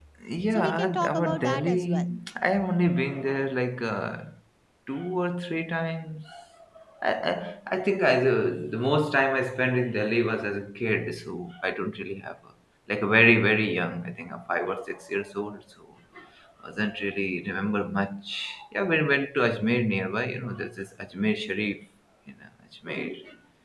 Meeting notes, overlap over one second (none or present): present